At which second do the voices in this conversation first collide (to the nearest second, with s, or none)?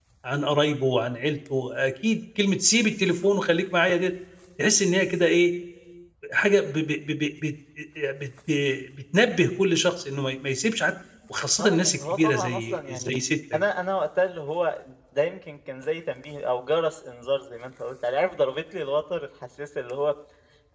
12 s